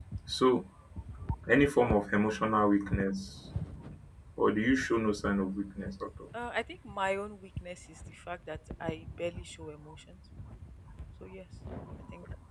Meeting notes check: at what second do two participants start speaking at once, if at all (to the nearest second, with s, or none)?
none